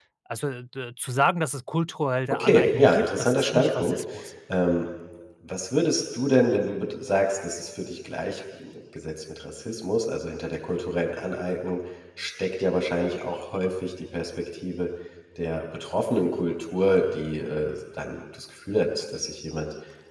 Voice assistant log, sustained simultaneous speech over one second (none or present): present